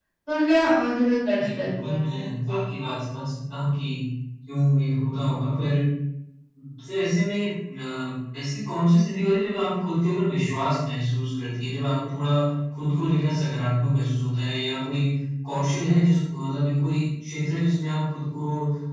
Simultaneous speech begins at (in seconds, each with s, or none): 1.3 s